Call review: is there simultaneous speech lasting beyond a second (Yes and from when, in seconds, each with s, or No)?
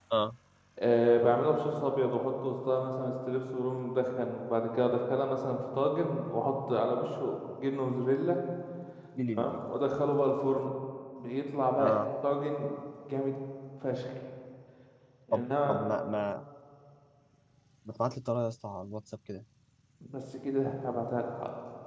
No